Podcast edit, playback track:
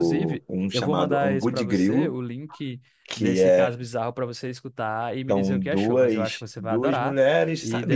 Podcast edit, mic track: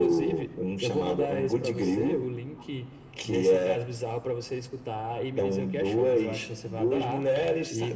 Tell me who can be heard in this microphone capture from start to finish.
echo only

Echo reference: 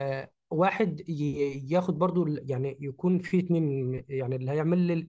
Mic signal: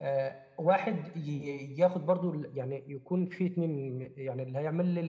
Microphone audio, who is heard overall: echo only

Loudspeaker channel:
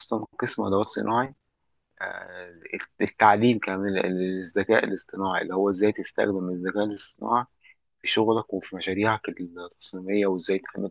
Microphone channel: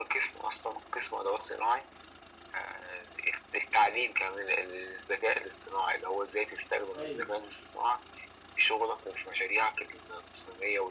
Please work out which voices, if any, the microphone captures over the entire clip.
both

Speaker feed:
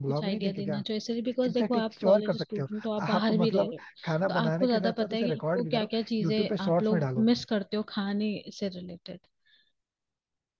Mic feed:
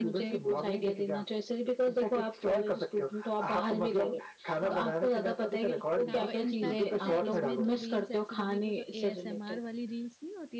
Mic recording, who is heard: both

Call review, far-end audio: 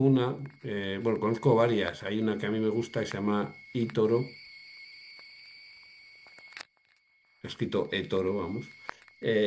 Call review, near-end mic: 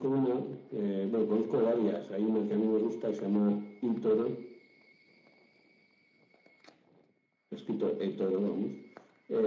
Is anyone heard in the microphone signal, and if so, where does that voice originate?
echo only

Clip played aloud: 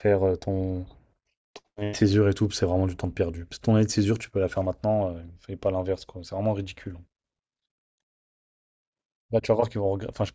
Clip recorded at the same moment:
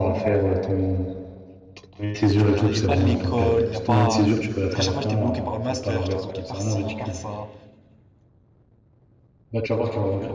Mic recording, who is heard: both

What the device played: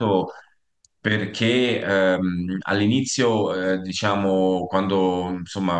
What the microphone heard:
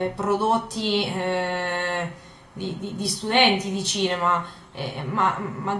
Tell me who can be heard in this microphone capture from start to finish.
user only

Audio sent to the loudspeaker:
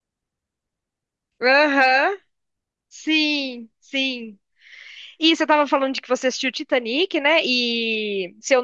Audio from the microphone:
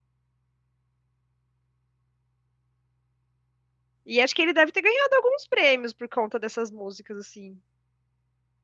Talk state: user only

